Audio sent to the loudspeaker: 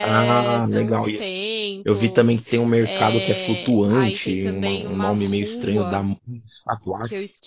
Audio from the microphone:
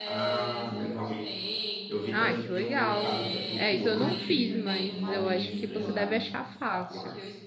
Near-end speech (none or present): present